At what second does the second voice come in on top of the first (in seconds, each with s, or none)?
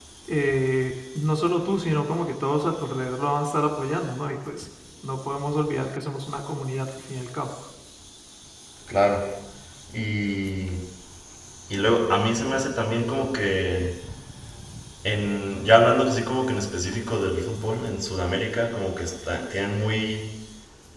none